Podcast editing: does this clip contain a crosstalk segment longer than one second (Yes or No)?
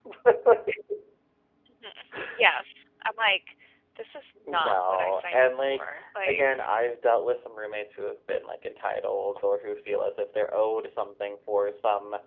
Yes